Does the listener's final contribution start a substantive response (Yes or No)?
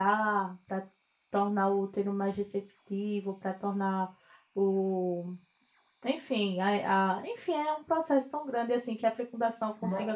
No